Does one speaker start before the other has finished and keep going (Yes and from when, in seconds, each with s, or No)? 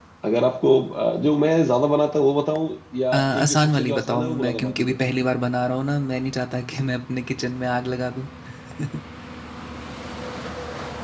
Yes, from 3.1 s